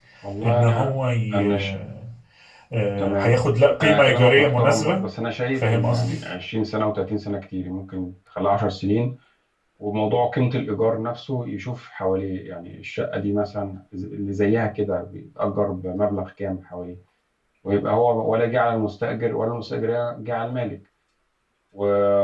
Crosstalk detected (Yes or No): Yes